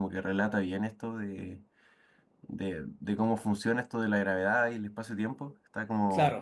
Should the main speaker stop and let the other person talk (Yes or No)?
No